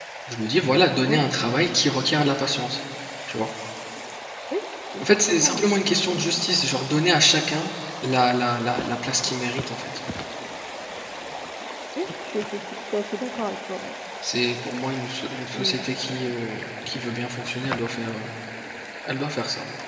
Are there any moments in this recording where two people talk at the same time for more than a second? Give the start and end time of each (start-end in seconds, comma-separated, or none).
5.0-6.4